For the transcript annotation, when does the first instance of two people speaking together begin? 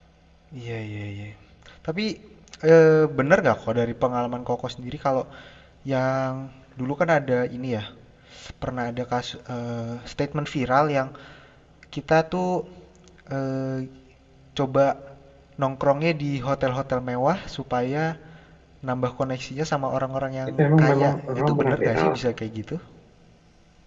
20.5 s

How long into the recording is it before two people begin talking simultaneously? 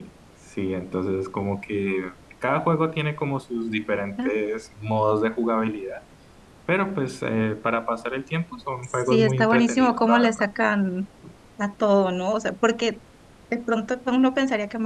8.8 s

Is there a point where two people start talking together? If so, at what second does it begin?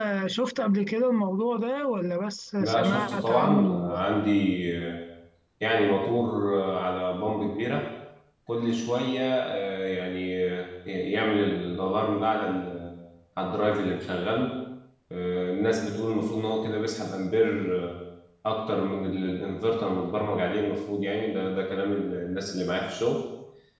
2.6 s

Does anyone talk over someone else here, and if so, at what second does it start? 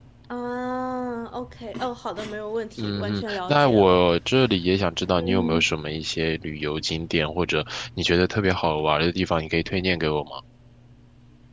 2.8 s

